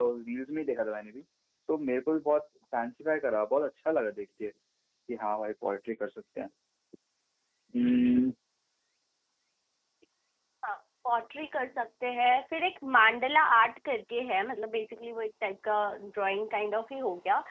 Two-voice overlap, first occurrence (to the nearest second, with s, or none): none